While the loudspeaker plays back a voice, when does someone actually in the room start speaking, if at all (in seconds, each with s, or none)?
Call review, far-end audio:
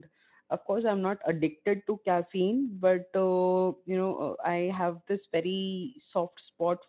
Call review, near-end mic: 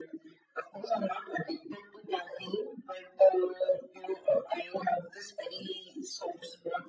none